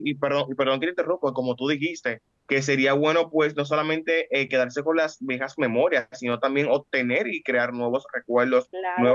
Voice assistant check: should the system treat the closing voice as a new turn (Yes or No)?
No